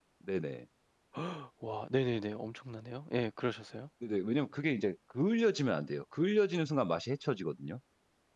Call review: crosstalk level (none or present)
none